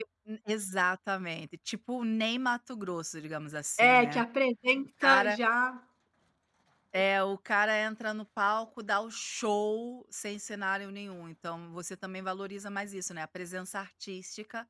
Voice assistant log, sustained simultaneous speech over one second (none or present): none